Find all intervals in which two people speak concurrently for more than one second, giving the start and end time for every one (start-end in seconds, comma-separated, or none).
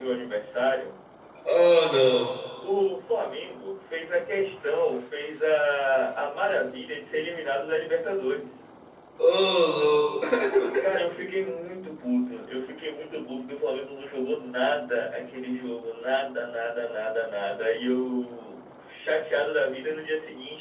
none